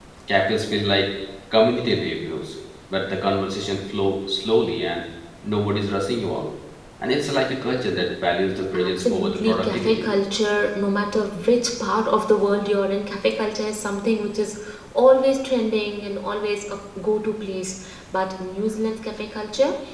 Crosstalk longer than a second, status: present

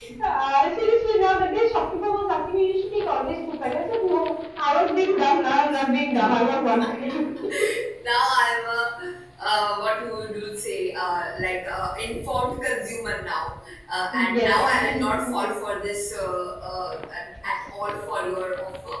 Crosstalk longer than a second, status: present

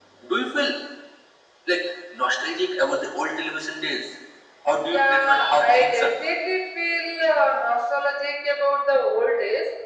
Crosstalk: present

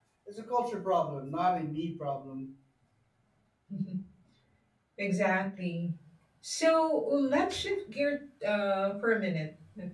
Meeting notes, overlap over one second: none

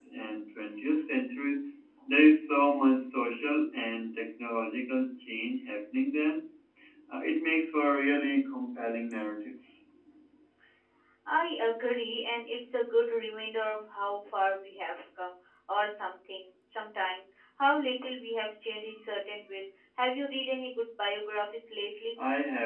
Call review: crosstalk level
none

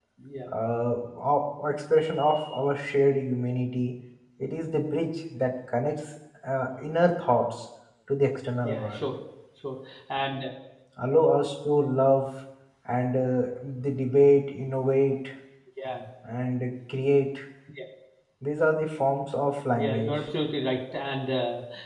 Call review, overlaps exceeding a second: none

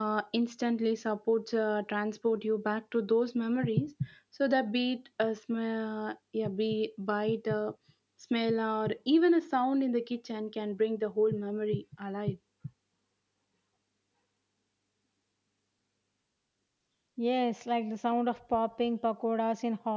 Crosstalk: none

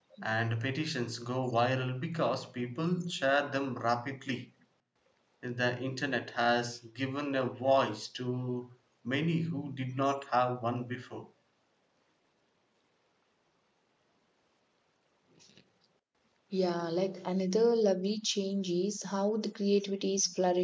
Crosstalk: none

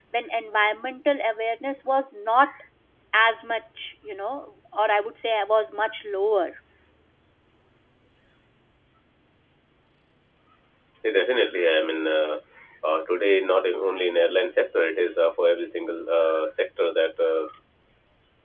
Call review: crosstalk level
none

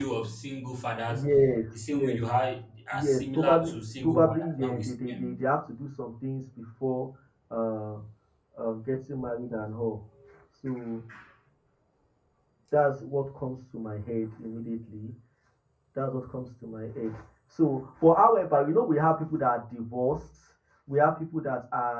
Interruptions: present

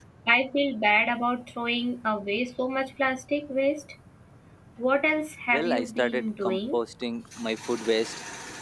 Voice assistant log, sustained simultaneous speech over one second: present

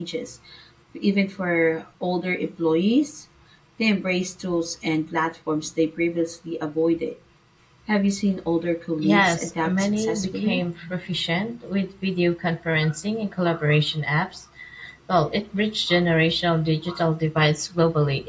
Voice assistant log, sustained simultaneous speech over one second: present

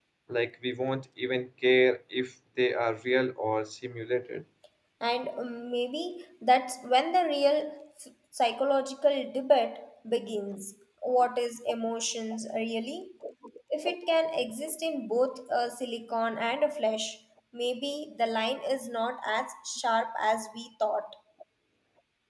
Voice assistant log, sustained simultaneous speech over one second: none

